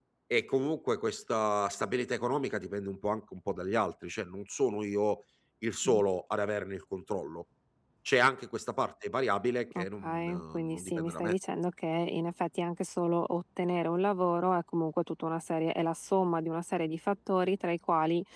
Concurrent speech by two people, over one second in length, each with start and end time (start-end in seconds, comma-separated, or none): 9.8-11.3